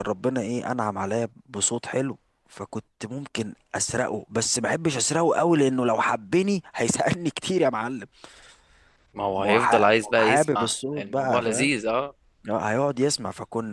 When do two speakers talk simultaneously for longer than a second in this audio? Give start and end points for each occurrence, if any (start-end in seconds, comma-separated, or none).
9.4-11.7